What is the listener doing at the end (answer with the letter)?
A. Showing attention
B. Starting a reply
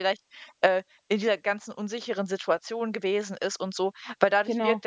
A